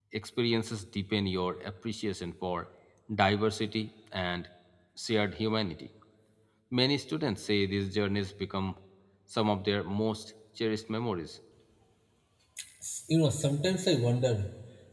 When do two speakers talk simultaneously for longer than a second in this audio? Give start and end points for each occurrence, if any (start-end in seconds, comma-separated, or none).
none